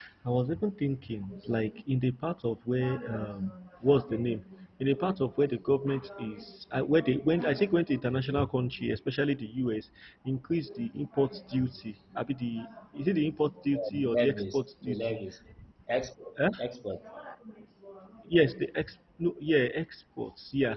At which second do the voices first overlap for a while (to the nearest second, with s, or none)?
14 s